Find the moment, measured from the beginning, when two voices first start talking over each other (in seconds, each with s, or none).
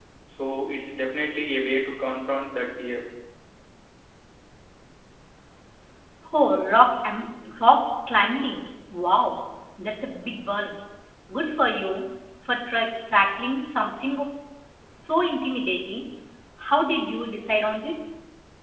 none